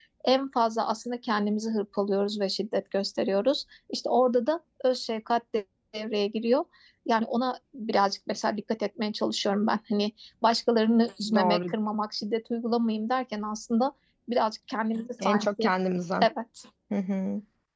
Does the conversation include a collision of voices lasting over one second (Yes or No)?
No